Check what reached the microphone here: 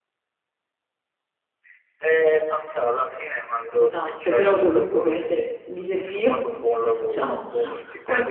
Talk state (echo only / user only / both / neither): both